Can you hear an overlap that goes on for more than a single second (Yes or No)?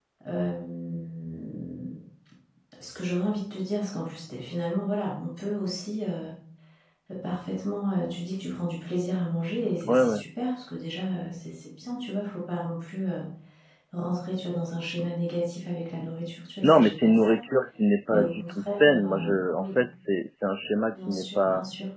Yes